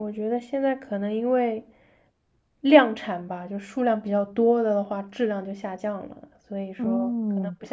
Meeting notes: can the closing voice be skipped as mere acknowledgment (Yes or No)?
No